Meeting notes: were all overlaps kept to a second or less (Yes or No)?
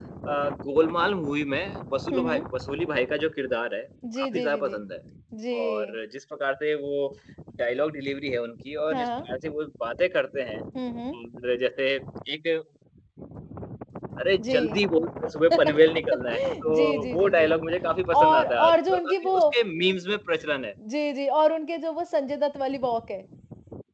No